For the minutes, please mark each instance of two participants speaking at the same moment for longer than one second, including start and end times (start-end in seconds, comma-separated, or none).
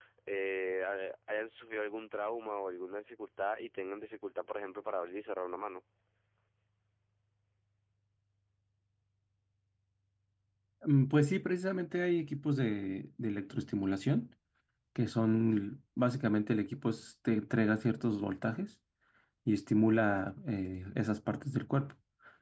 none